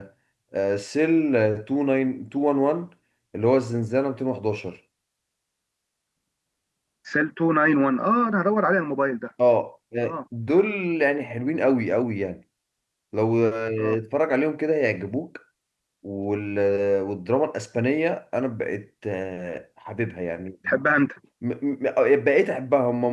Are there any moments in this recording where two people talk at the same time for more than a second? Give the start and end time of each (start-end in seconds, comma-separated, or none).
none